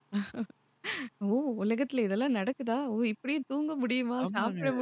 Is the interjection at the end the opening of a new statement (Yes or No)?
Yes